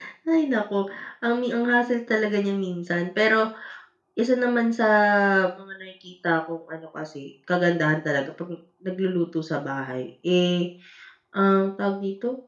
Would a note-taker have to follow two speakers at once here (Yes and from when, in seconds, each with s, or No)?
No